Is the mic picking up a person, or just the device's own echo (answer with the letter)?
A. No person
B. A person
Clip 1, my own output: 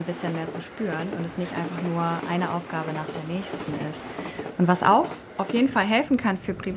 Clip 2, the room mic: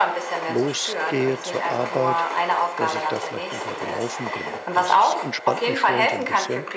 B